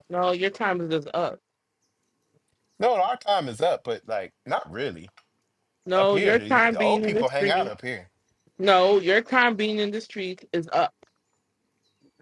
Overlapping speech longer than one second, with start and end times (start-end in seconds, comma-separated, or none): 6.0-7.7